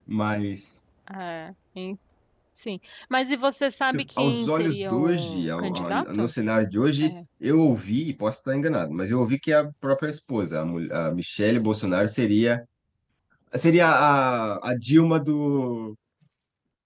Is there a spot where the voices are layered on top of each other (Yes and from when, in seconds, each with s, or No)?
Yes, from 3.9 s